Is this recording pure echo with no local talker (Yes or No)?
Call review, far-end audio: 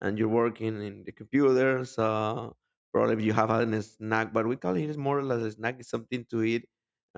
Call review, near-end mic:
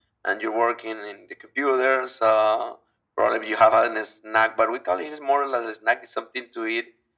Yes